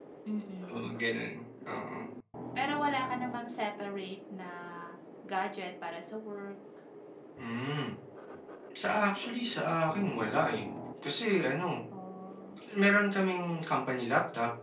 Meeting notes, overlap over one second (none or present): none